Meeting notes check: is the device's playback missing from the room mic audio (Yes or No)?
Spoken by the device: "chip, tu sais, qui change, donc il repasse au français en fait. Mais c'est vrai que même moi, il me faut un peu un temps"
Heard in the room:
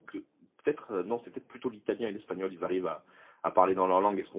Yes